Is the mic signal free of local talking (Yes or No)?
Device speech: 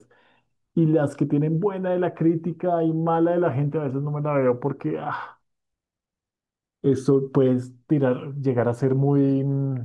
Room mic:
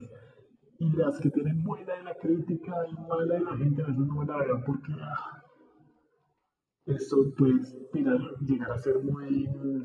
Yes